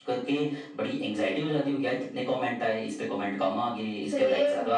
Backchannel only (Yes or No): No